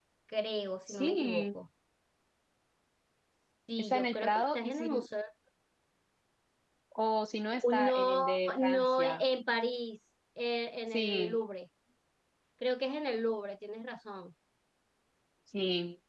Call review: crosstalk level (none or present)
present